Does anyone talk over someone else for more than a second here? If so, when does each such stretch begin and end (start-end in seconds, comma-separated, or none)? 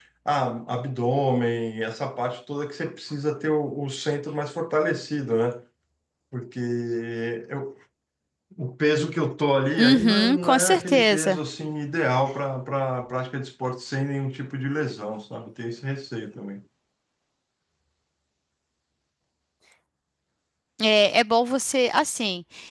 9.8-11.4